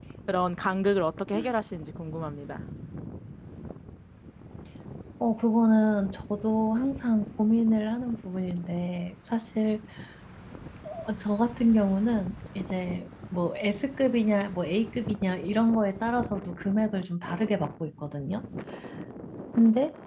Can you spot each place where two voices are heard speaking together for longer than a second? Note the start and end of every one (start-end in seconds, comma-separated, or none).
none